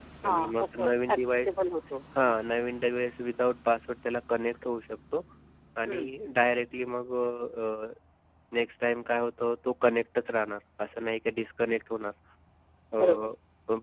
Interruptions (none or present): present